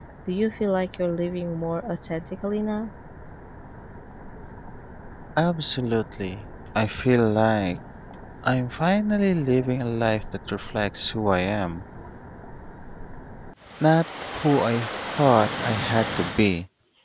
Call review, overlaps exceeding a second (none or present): none